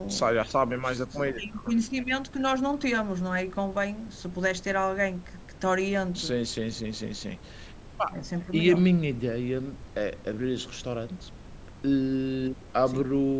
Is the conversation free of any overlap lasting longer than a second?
Yes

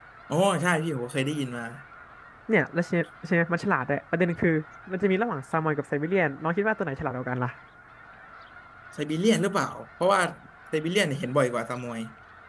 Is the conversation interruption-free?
Yes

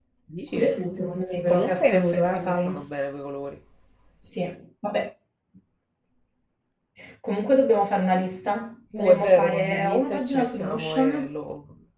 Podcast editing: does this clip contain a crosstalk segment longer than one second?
Yes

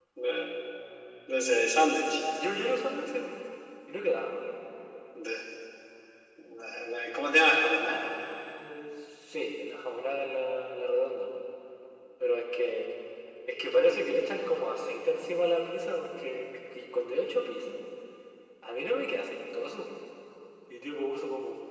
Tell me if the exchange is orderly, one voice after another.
Yes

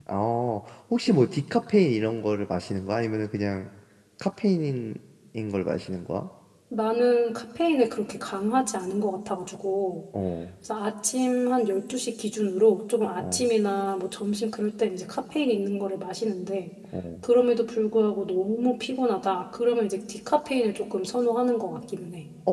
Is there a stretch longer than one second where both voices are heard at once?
No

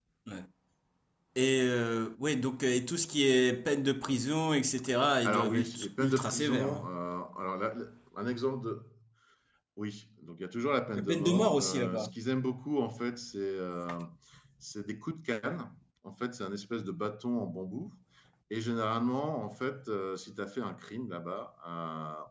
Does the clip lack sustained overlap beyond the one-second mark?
No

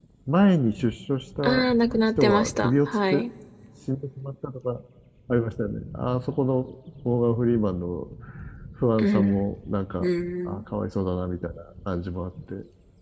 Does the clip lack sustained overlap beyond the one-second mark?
No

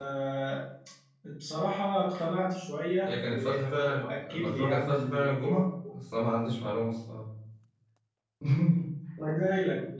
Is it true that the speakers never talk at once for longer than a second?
No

